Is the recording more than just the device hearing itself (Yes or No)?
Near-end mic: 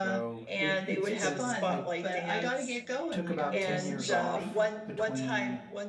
Yes